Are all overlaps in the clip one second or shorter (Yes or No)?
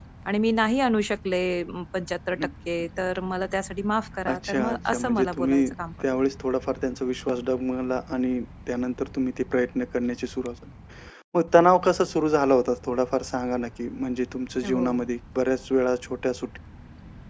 No